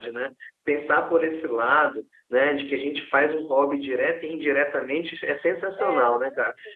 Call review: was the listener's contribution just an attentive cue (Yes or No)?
Yes